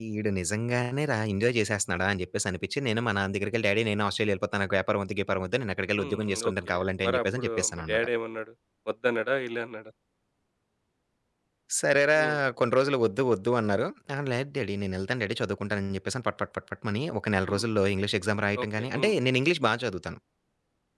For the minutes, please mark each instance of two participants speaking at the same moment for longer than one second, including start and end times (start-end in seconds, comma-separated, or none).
6.0-8.0